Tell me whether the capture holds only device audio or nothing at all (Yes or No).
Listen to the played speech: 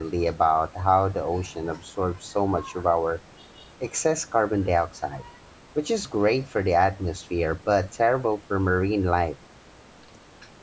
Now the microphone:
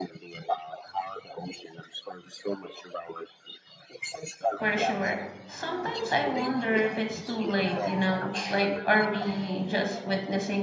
No